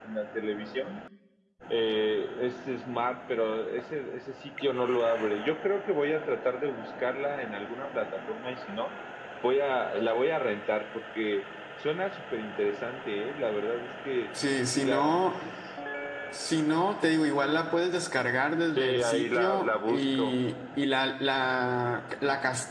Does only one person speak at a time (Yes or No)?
No